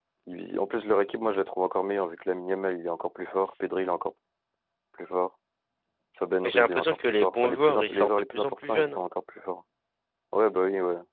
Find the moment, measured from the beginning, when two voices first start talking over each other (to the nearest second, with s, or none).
6 s